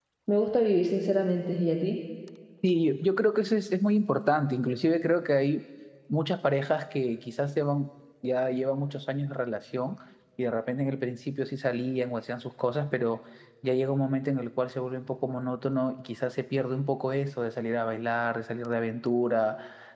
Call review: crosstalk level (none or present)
none